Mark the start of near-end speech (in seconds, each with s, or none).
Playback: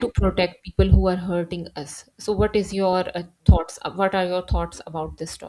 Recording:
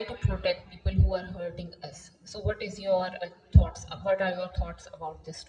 none